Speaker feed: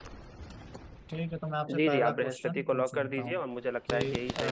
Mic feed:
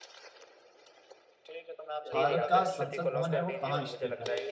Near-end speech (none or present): present